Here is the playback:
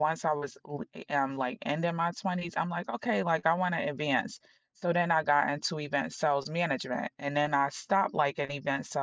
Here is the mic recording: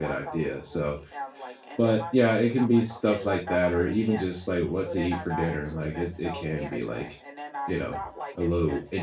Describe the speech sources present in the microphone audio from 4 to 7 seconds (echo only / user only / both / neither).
both